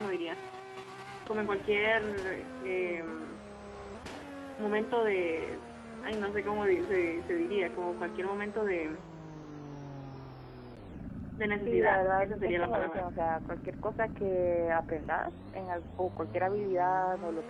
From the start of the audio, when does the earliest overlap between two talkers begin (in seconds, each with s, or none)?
11.6 s